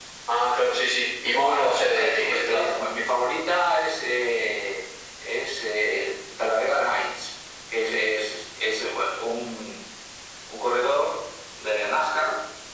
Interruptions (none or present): present